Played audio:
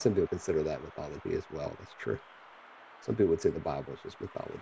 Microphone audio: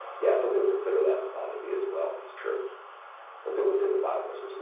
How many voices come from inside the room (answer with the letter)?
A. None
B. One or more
A